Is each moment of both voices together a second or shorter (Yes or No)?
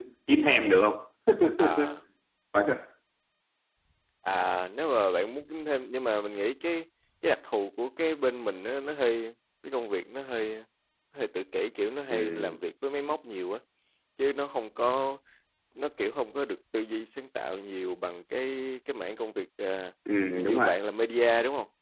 Yes